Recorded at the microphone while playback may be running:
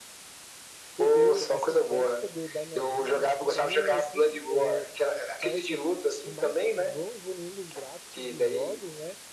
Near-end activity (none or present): present